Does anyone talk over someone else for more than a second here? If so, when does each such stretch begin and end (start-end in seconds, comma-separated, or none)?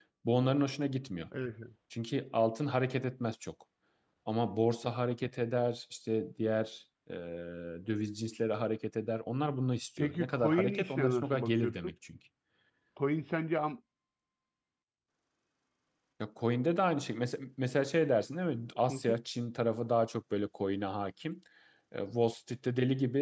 10.0-11.9